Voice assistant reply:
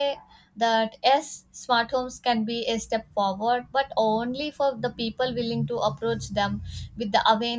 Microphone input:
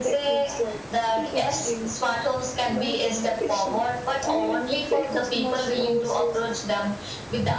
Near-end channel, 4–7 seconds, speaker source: both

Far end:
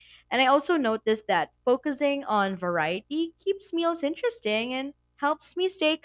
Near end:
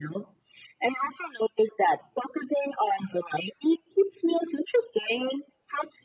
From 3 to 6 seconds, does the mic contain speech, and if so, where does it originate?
echo only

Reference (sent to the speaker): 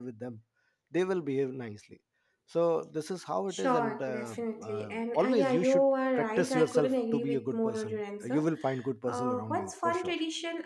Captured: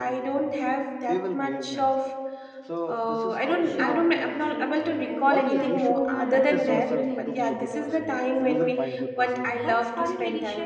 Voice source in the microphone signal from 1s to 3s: both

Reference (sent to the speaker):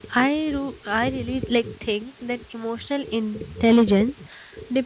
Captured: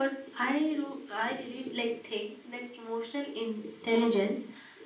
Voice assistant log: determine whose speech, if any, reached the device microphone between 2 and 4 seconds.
echo only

